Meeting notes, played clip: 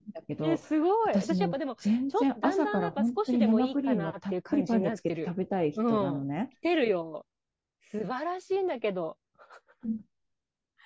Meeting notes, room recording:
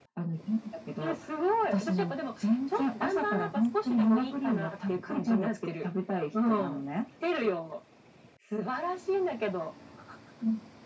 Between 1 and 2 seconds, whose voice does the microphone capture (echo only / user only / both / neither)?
echo only